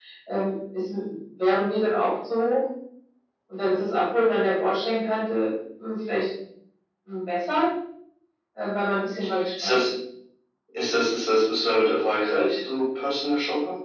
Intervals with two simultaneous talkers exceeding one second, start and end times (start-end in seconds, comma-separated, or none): none